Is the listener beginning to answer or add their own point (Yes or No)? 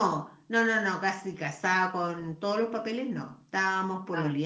No